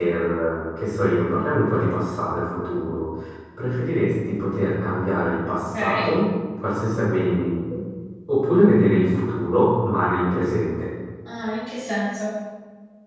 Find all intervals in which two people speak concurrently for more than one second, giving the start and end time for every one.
none

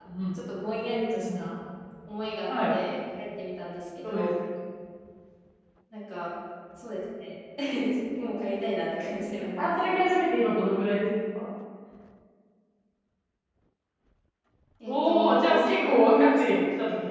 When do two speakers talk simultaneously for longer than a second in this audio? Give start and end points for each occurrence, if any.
14.9-16.6

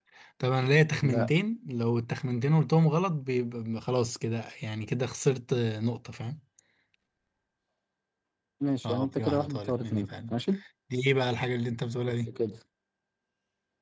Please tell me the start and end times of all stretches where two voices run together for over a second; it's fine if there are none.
8.8-10.3

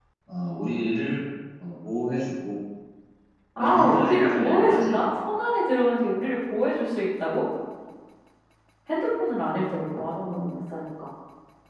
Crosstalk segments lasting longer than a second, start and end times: 3.6-5.0

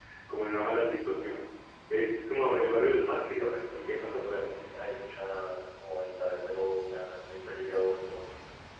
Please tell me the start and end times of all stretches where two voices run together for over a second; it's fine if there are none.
2.8-4.5

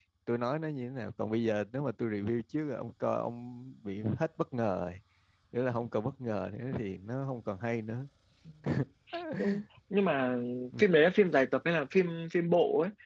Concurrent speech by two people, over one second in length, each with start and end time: none

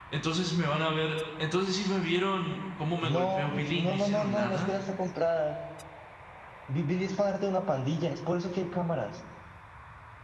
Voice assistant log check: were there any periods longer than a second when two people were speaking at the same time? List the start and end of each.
3.1-4.7

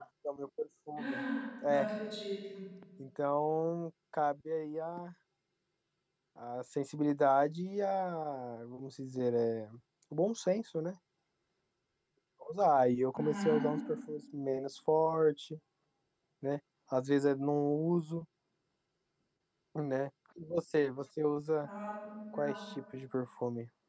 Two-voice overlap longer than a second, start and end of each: none

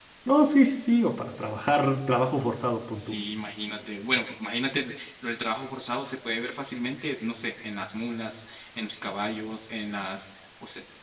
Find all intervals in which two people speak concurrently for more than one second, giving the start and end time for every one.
none

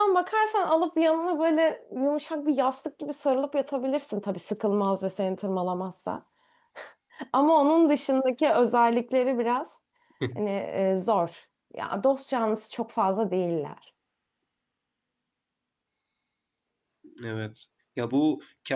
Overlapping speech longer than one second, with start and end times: none

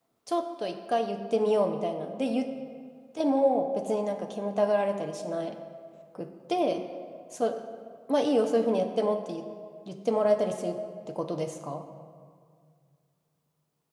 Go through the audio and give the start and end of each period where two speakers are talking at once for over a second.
none

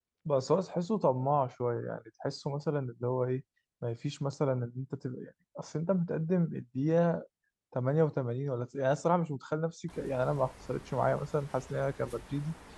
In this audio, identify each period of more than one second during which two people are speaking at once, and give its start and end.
none

